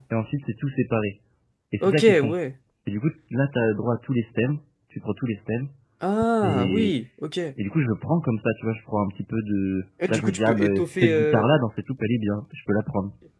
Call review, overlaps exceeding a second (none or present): present